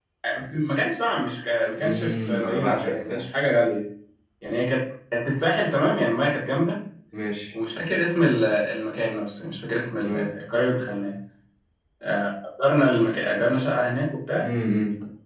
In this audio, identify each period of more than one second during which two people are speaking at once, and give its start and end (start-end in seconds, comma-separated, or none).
1.8-3.2